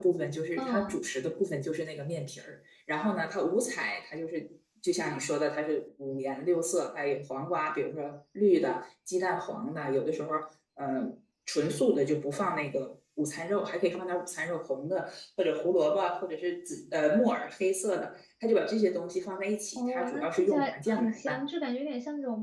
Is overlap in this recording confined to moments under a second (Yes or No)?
No